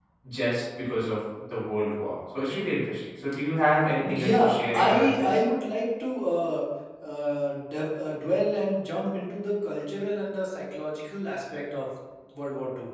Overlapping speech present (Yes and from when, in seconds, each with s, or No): Yes, from 4.0 s